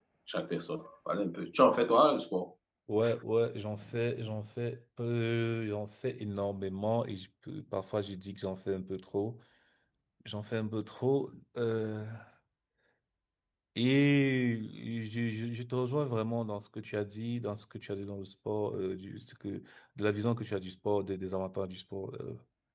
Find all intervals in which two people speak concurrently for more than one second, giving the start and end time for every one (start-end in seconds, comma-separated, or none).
none